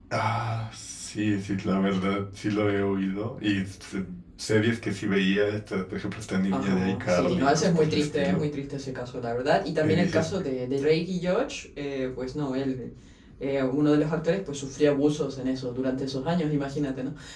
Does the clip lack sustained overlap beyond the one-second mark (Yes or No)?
No